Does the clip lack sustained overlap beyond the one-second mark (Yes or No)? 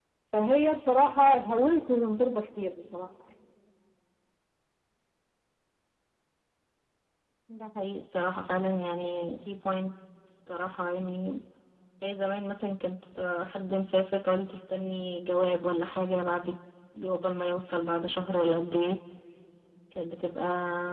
Yes